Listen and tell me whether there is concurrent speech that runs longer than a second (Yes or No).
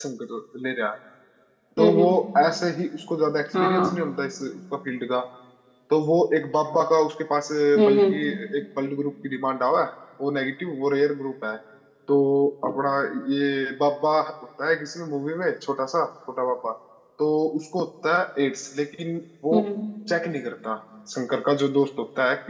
No